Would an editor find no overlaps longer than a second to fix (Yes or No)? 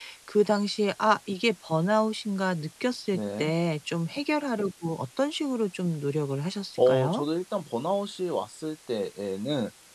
Yes